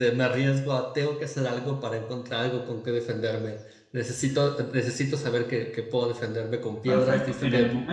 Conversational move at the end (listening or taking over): taking over